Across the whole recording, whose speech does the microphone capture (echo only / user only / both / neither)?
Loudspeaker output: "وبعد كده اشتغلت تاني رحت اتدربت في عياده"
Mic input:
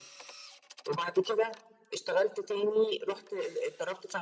echo only